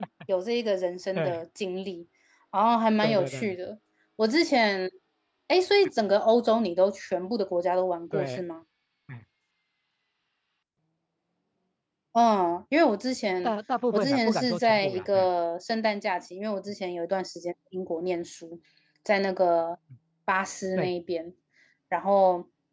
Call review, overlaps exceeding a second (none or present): present